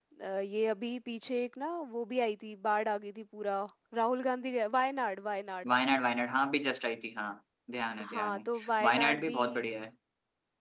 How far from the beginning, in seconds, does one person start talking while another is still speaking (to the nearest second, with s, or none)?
8 s